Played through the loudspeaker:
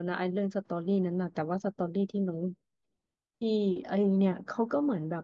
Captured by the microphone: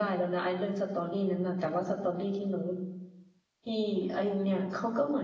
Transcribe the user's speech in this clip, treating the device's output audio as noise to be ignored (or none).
none